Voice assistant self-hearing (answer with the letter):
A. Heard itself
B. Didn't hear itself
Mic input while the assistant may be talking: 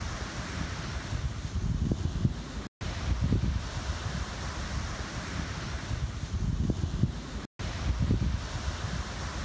B